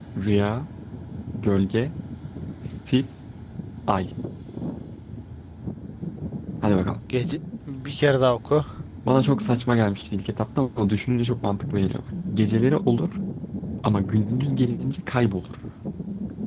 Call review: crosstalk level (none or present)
none